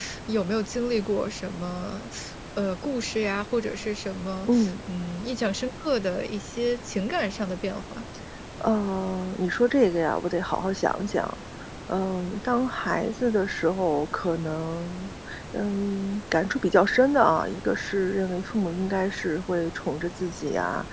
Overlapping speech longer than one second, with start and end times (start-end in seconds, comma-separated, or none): none